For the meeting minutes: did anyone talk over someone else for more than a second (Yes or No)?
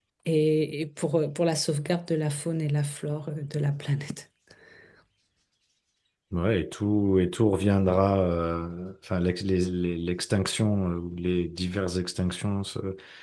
No